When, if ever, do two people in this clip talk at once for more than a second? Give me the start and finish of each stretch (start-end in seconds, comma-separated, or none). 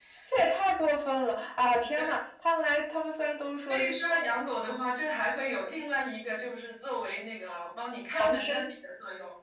none